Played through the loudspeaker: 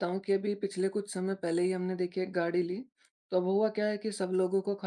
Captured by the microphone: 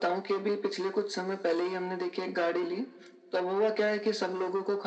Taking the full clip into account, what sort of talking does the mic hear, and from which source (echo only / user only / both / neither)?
echo only